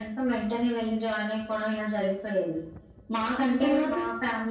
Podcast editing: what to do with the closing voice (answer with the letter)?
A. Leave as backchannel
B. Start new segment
A